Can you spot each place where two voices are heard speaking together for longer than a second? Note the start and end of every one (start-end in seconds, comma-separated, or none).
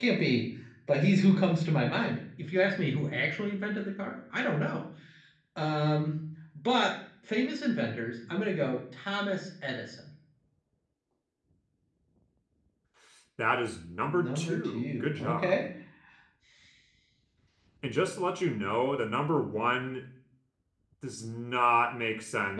14.1-15.7